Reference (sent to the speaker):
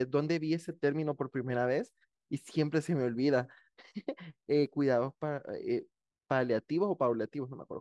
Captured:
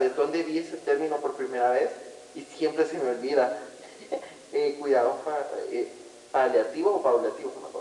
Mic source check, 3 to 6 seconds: echo only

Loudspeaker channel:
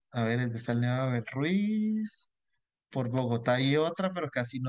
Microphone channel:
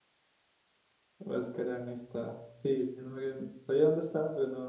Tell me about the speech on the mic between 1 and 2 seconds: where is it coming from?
user only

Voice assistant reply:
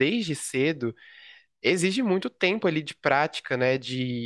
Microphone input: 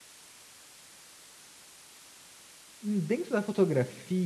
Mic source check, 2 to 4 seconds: user only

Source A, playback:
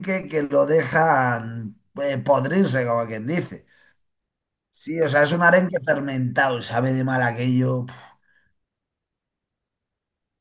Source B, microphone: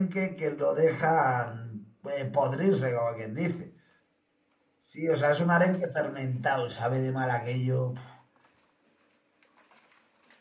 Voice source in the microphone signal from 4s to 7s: echo only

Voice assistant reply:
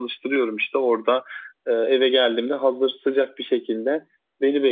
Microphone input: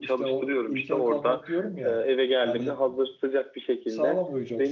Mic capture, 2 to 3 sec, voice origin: both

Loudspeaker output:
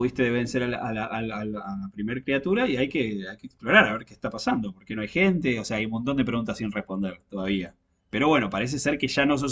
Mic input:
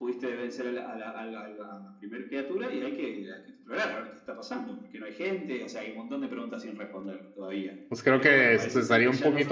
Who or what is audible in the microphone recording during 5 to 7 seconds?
echo only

